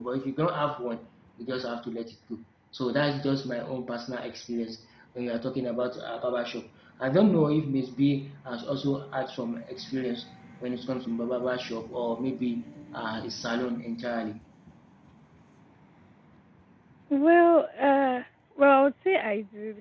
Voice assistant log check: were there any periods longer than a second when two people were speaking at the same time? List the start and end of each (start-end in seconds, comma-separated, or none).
none